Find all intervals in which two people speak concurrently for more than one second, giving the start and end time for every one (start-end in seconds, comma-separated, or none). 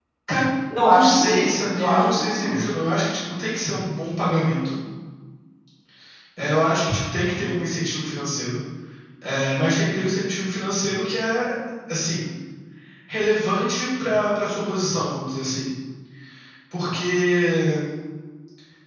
0.9-2.8